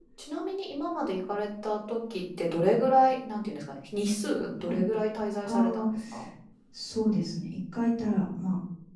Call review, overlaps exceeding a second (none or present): none